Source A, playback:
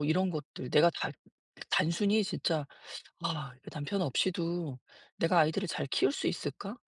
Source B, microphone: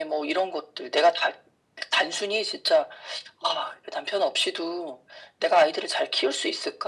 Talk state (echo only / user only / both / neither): echo only